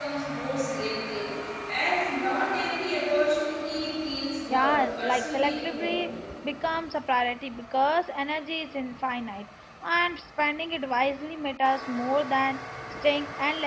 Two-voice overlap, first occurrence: 4.5 s

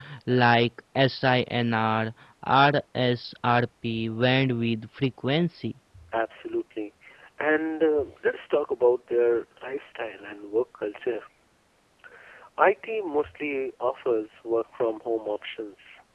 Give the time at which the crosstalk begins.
none

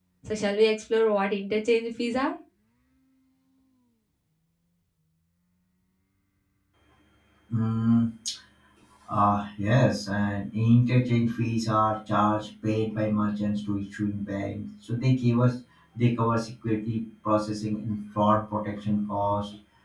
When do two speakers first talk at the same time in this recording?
none

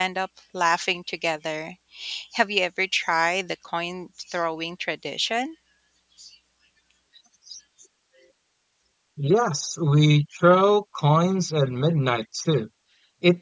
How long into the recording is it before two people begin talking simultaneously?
none

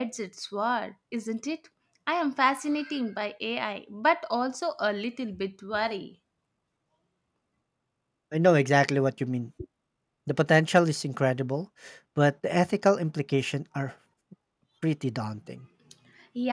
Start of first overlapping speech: none

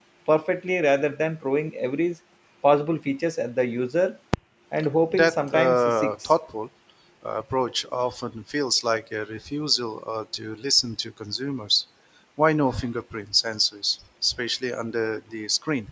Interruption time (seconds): 5.1 s

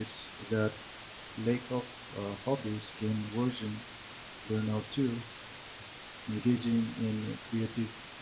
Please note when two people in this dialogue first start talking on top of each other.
none

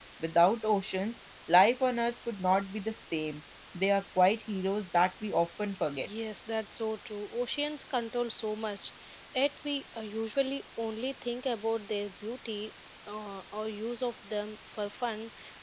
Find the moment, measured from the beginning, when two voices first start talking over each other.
none

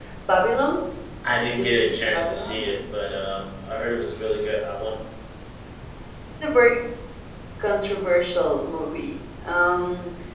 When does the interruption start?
1.4 s

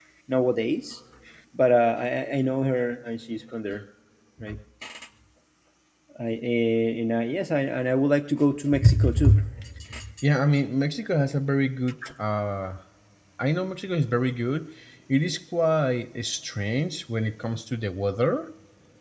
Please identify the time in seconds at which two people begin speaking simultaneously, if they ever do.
none

